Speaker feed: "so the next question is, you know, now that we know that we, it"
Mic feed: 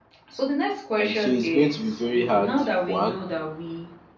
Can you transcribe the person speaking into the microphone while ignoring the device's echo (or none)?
And so it's going to be very hard. One,